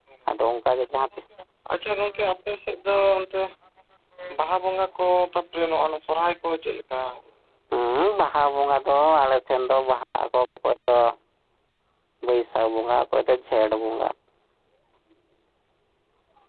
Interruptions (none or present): none